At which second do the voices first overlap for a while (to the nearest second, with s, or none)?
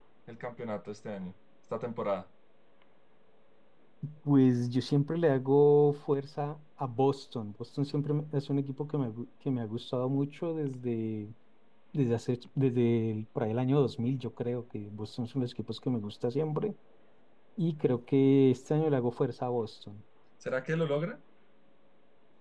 none